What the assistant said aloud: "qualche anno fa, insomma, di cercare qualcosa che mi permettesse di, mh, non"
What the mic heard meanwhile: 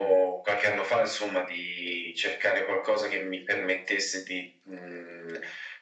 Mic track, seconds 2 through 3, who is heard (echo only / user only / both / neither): echo only